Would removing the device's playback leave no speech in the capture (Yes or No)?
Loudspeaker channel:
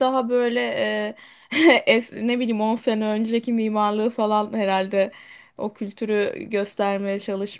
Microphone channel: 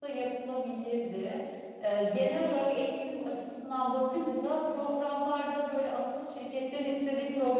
No